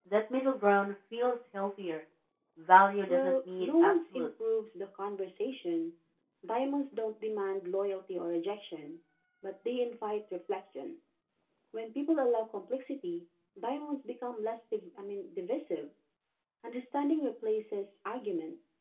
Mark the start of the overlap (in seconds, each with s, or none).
3.1 s